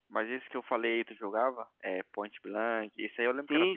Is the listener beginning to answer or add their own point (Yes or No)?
Yes